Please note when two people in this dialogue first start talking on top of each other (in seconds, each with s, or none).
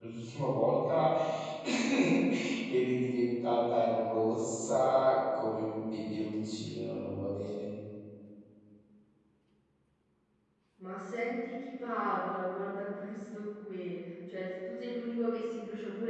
none